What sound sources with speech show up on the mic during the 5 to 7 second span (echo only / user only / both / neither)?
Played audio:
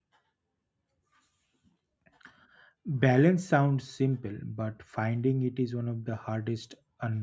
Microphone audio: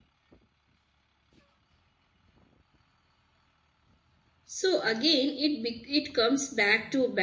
user only